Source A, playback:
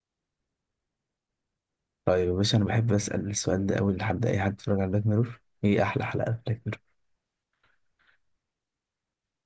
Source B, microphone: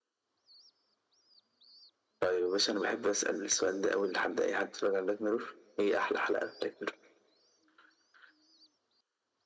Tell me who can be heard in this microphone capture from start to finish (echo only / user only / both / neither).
echo only